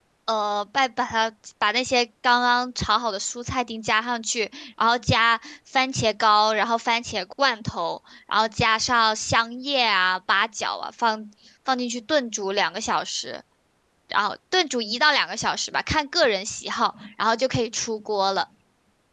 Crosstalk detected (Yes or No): No